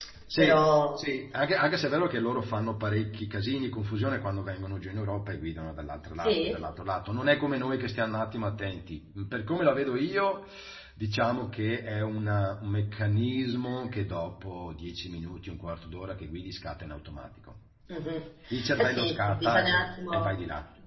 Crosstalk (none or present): present